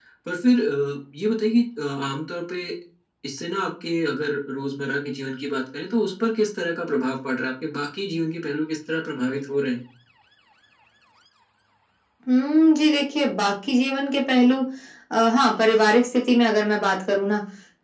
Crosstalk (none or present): none